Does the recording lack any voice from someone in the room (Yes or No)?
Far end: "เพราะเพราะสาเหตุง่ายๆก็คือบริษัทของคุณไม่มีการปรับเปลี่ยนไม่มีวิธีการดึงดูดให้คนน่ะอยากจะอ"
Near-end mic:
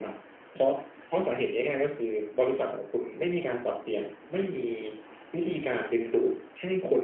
Yes